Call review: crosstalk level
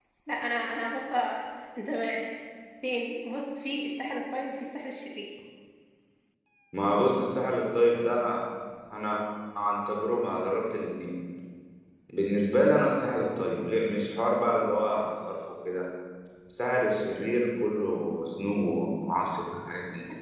none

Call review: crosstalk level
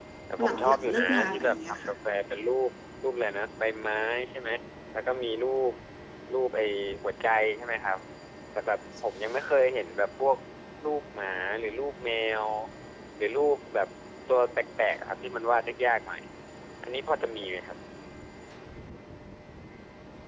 present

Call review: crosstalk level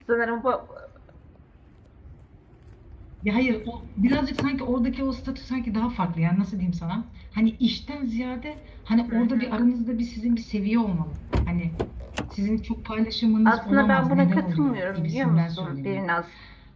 present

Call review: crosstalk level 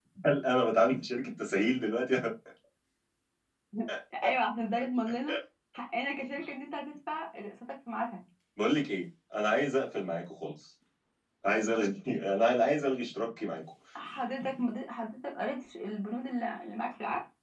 none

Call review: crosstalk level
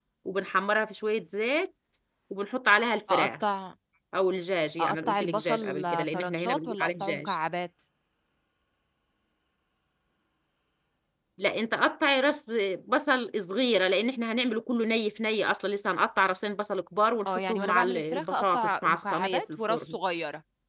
present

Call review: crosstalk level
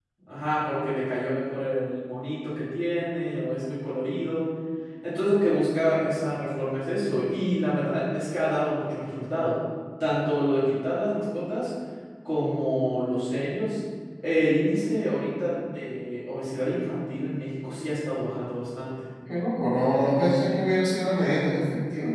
none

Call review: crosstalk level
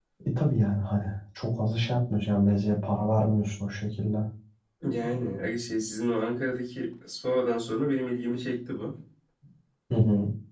none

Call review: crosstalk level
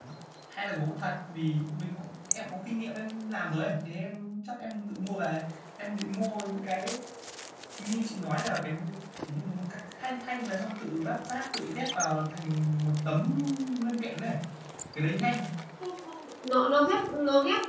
none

